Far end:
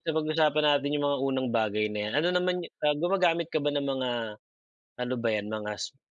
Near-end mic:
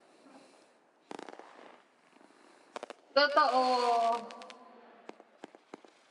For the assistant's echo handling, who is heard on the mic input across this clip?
user only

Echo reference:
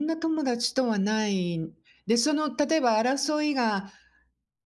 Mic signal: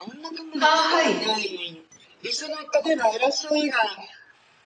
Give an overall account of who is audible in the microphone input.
both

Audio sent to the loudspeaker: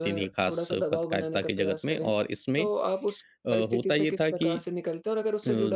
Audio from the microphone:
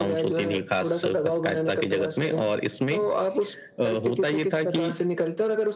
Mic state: echo only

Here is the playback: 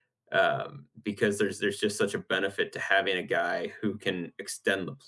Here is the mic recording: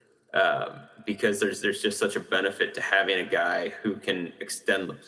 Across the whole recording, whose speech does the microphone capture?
echo only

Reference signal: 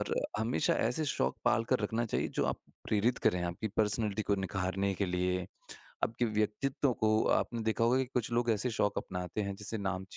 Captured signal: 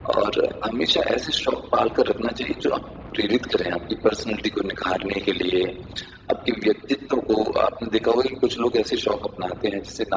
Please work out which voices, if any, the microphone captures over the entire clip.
echo only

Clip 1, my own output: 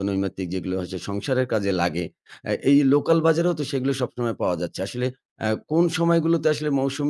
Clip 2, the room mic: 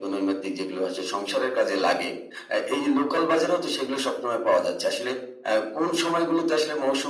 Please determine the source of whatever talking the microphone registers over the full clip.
echo only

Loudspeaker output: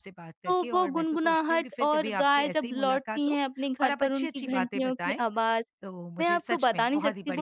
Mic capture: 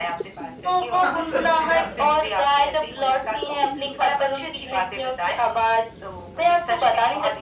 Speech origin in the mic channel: both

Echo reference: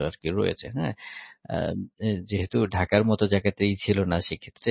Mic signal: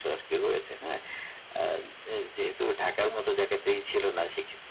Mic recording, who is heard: echo only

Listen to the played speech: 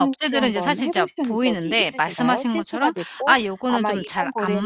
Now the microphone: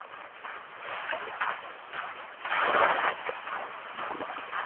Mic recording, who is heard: neither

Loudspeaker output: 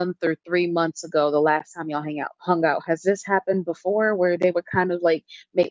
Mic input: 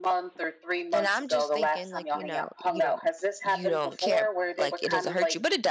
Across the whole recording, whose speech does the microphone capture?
both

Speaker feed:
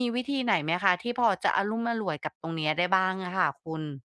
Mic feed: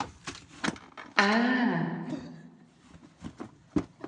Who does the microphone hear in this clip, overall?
user only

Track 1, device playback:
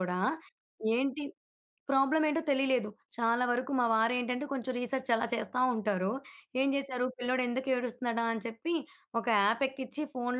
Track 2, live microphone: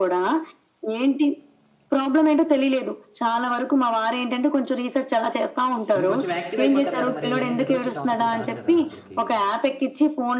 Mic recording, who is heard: both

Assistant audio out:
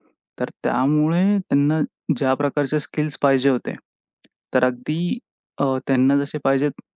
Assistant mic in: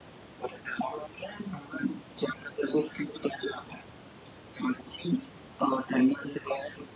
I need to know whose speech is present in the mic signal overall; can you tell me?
echo only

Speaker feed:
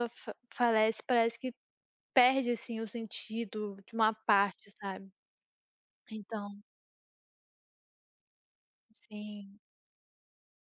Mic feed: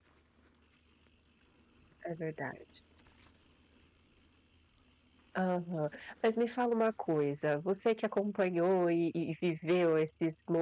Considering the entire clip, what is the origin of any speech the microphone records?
user only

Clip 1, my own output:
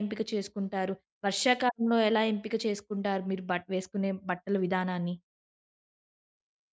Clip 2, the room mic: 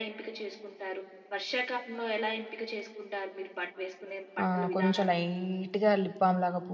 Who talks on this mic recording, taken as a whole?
both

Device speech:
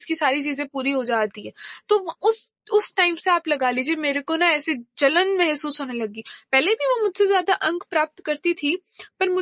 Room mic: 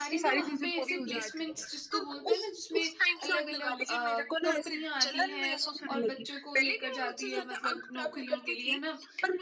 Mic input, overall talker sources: both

